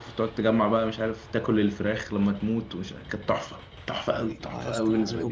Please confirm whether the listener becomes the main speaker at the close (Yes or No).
Yes